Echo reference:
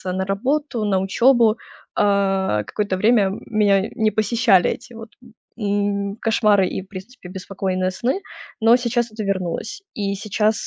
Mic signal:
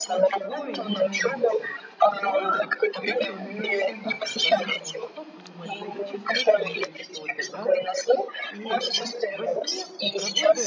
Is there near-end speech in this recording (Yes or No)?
Yes